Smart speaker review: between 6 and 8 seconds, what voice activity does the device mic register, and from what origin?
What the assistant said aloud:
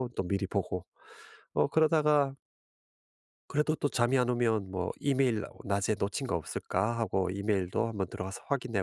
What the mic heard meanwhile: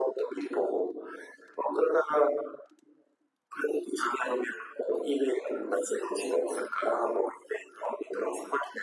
echo only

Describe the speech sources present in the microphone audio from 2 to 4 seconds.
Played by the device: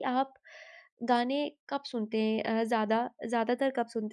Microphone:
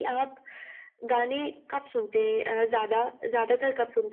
echo only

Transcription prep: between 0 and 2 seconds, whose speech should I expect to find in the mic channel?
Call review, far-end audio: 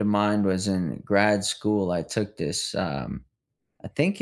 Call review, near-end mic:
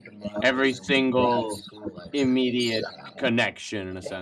both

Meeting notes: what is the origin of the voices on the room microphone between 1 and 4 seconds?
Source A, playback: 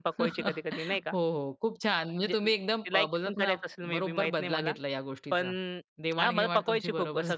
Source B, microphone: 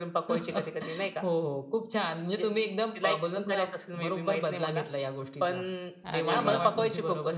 echo only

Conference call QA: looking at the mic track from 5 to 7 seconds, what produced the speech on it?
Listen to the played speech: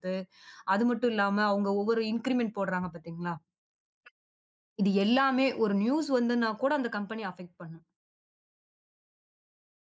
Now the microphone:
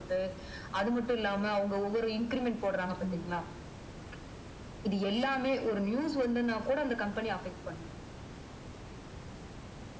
echo only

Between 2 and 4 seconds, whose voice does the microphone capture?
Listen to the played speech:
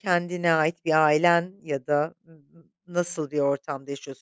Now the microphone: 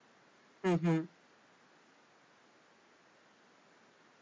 neither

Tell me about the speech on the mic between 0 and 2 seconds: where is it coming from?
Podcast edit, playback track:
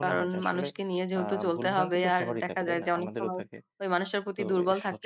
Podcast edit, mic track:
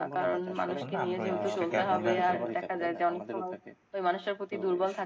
both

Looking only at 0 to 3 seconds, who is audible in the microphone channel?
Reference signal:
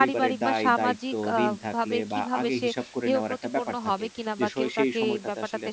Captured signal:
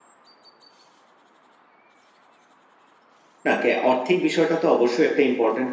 neither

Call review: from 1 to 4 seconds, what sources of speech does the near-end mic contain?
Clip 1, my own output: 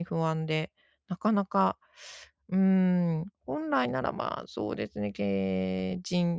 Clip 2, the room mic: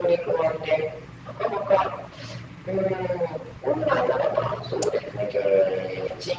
echo only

